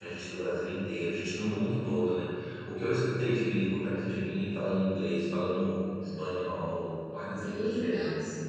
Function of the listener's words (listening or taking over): taking over